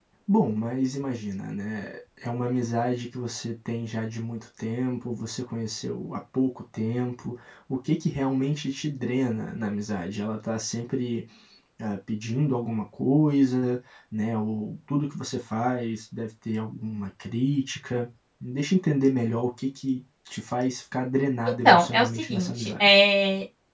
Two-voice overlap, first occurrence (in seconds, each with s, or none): 21.5 s